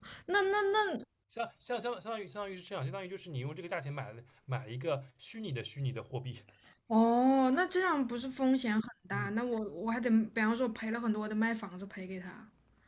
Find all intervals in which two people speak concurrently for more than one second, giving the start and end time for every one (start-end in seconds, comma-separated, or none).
none